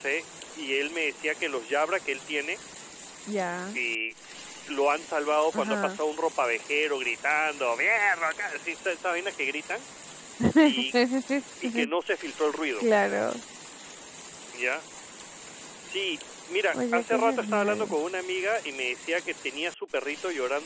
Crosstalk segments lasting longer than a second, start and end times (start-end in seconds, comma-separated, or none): 16.7-18.0